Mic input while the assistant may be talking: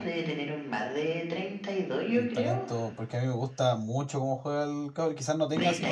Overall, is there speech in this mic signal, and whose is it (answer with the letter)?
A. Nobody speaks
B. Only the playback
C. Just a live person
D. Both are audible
D